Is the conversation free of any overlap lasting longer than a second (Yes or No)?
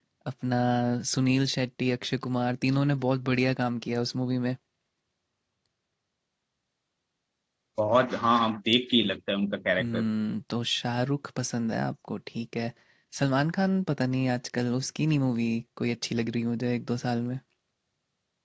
Yes